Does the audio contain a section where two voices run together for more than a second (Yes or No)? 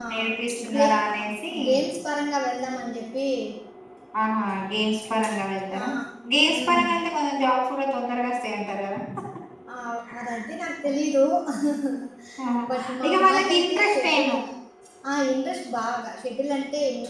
Yes